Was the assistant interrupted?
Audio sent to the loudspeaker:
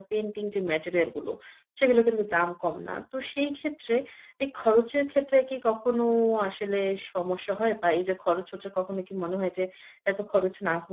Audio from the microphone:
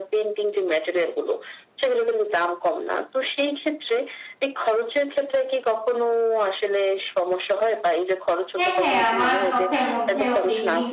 Yes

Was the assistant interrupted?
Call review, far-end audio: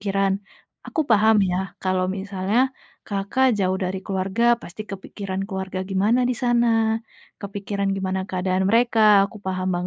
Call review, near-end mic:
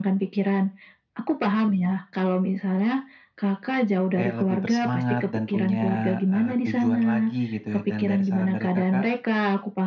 Yes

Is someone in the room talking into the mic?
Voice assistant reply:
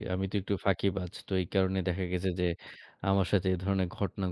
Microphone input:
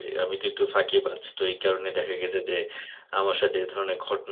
No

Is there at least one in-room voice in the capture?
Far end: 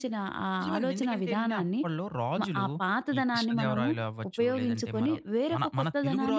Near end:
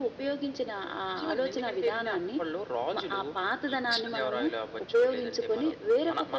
No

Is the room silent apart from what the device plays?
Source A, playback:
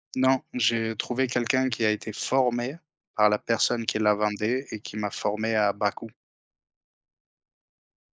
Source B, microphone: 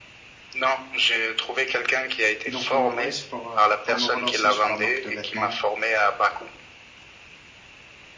No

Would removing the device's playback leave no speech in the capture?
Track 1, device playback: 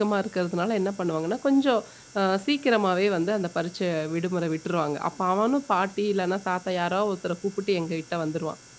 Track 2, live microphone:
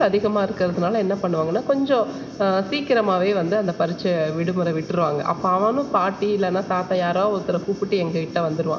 Yes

